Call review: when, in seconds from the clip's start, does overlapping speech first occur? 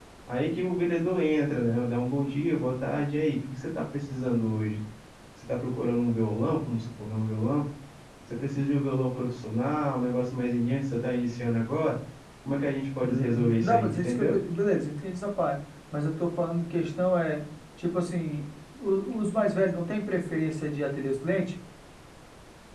13.0 s

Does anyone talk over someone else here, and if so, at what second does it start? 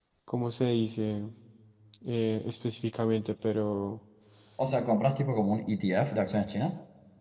none

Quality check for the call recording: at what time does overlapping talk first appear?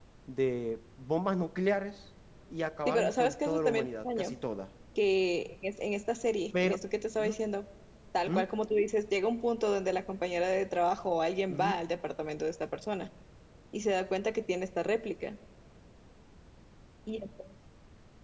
2.9 s

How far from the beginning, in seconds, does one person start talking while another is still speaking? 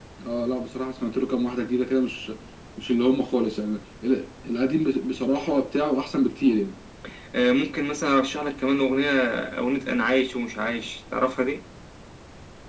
none

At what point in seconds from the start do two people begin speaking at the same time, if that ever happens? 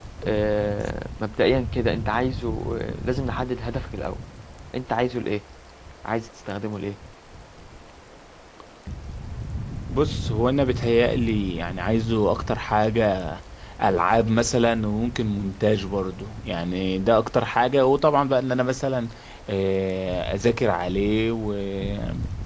none

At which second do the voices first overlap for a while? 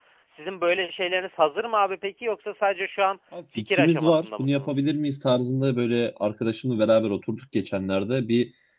3.6 s

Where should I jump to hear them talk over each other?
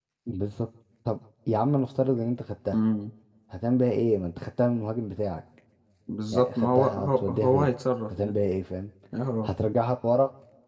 6.3 s

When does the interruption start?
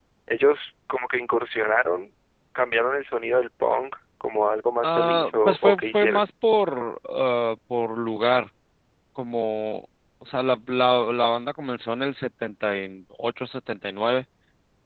4.8 s

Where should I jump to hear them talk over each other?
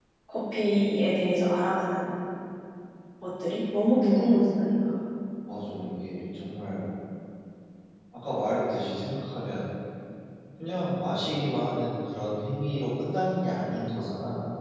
none

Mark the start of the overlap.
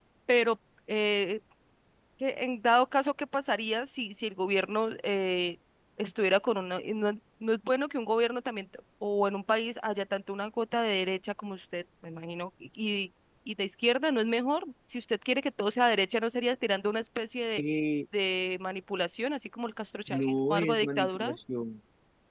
20.1 s

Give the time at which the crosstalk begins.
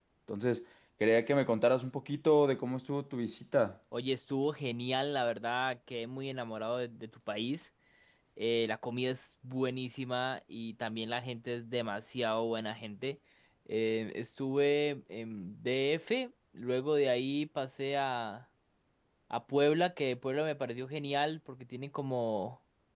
none

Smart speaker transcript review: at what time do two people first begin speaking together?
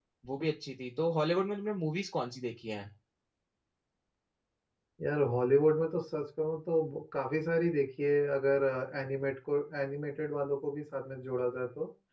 none

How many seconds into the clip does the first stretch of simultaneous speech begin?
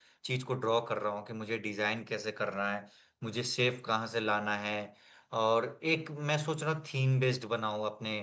none

